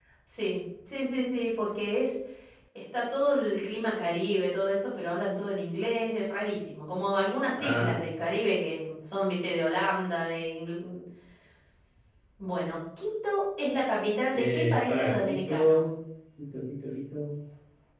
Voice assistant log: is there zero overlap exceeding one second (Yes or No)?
No